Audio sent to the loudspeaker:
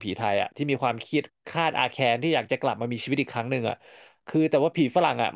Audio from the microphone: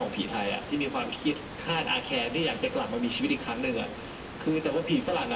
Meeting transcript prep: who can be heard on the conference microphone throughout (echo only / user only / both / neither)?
echo only